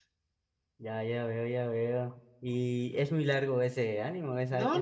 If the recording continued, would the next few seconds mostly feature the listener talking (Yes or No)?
Yes